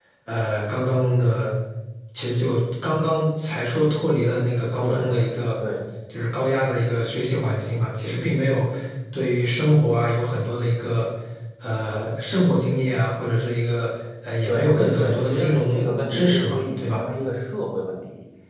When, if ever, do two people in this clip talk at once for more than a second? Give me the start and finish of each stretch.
14.5-17.0

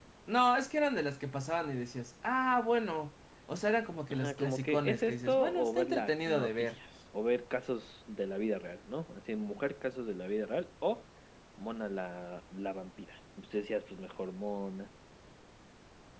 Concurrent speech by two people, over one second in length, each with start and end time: 4.1-6.8

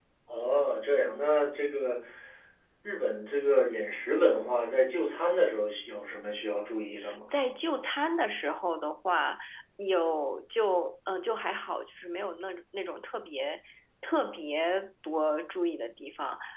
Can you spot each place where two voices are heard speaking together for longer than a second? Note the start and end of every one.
none

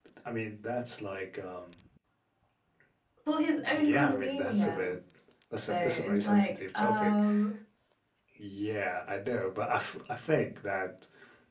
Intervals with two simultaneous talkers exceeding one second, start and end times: 3.7-4.9, 5.7-7.2

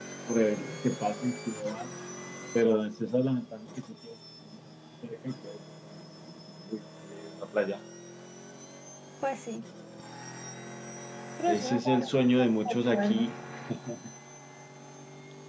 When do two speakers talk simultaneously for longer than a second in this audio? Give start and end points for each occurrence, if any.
11.5-13.3

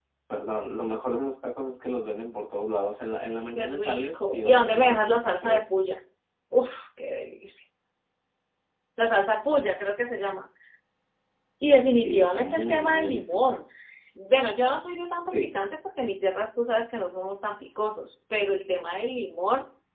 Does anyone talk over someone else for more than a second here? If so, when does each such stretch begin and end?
3.6-5.6, 12.0-13.6

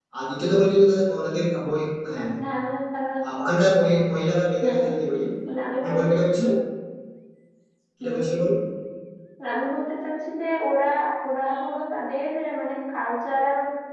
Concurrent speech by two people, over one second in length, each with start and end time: none

